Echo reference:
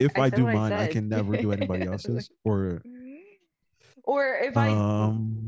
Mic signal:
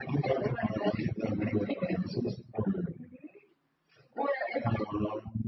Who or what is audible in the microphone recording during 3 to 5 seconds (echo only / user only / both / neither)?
echo only